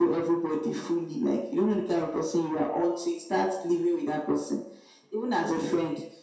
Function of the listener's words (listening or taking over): listening